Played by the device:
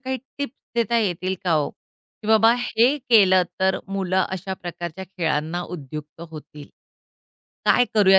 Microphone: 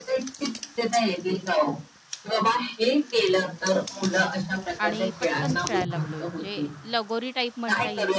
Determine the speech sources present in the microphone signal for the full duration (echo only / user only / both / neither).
both